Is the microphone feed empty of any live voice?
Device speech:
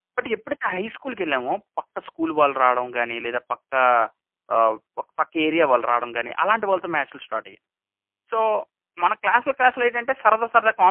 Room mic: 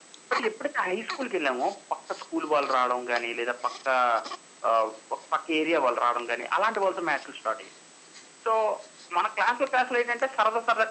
Yes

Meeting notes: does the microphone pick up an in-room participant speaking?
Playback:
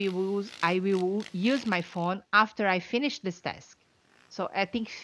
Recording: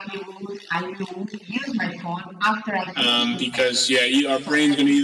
Yes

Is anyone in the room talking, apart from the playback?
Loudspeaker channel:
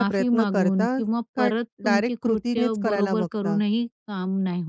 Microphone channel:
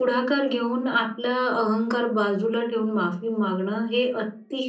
Yes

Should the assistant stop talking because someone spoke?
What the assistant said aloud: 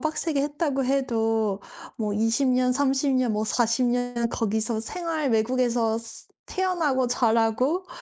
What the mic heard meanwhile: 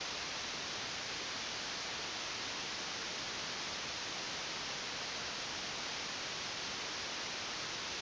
No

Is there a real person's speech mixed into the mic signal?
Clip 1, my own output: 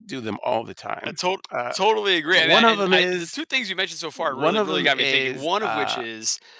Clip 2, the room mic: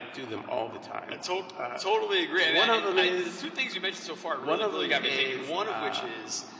No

